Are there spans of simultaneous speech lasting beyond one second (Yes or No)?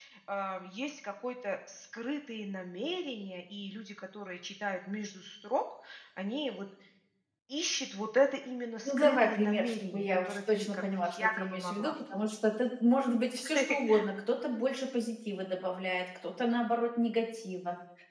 Yes